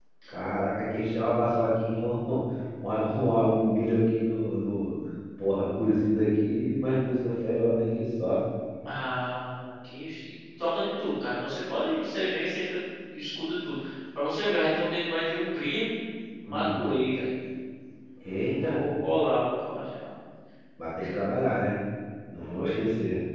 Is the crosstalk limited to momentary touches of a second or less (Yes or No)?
Yes